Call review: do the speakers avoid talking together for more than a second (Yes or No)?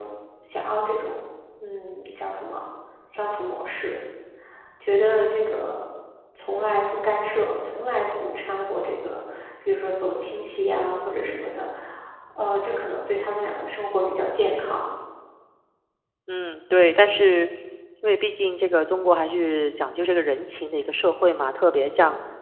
Yes